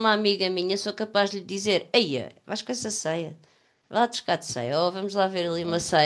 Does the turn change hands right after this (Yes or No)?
No